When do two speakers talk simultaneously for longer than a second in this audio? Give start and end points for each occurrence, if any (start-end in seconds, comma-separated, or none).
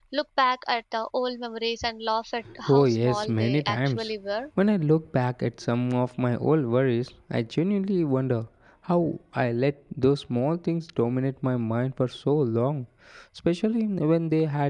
2.7-4.1